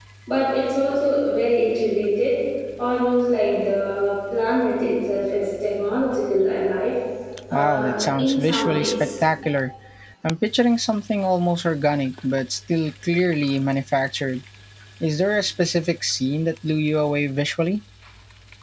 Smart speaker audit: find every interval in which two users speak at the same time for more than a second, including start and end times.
7.5-9.1

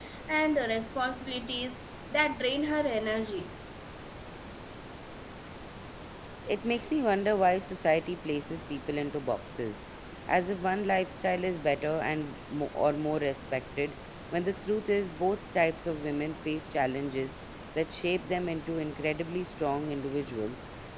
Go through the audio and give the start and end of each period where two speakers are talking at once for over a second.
none

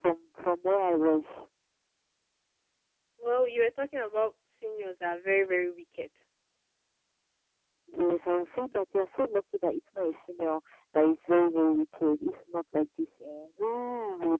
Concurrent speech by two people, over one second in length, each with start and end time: none

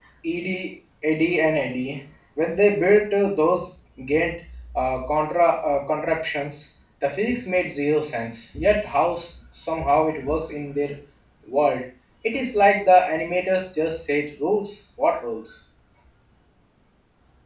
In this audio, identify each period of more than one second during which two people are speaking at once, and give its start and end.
none

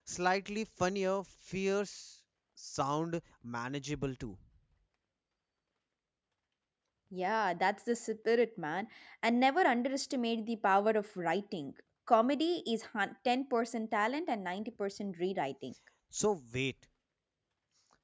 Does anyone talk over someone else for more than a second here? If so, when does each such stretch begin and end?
none

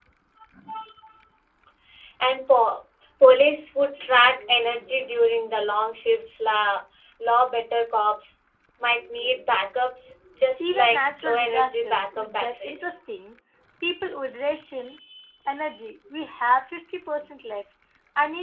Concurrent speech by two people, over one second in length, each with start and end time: 10.6-12.9

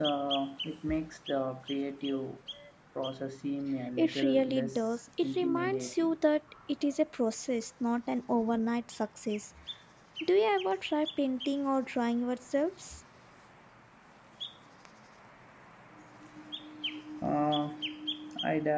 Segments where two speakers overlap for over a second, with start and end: 4.0-6.2

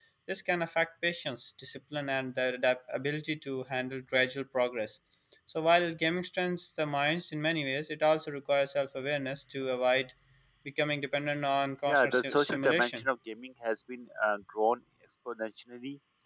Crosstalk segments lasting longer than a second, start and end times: 11.8-13.1

